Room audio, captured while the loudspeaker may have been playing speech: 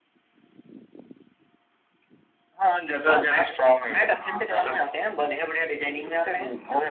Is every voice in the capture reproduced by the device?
Yes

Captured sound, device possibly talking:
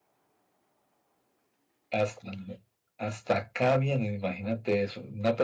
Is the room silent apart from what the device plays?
No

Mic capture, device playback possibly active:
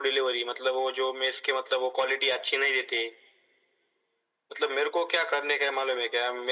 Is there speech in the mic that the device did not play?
No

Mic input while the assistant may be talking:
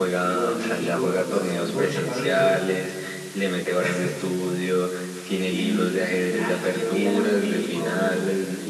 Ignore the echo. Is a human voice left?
No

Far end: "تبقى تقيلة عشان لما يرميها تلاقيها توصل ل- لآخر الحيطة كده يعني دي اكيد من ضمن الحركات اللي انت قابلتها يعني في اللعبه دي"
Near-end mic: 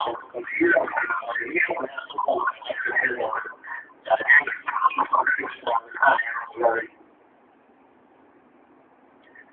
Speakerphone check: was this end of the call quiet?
Yes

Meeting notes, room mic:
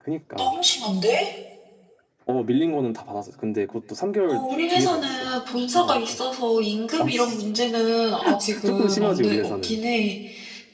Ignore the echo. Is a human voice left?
Yes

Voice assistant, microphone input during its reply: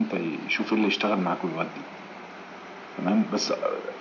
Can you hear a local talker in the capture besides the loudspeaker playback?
No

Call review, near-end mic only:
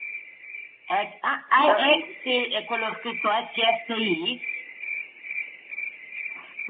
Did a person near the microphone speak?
Yes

